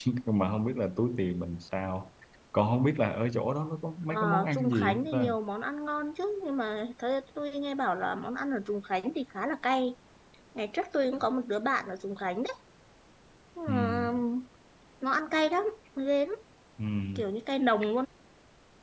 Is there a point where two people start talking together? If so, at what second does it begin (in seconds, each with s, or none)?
4.1 s